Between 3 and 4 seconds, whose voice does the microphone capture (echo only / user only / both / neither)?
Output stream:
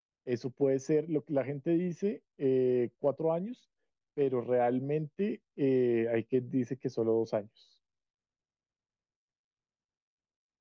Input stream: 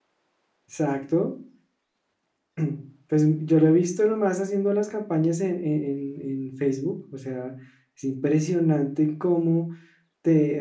user only